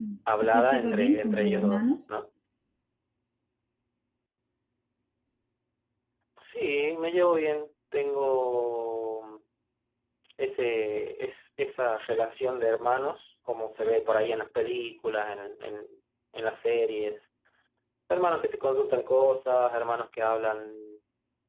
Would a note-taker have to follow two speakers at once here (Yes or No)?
Yes